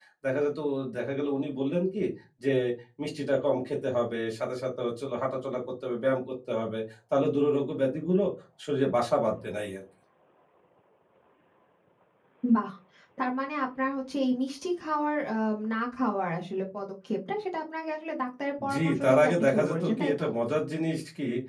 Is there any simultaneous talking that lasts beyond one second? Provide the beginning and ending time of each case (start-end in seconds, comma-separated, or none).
18.7-20.2